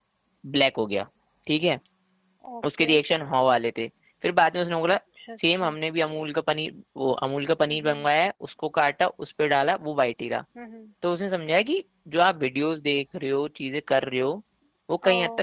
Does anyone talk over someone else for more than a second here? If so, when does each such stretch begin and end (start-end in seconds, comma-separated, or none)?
none